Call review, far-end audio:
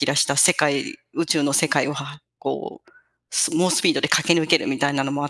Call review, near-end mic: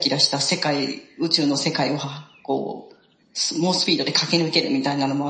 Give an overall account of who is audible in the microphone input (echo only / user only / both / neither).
echo only